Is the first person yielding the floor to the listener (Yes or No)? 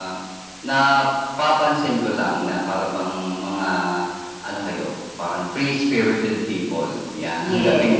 No